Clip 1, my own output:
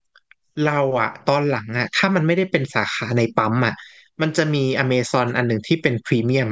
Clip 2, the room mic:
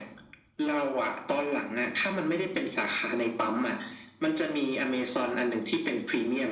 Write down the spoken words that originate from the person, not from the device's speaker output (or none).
none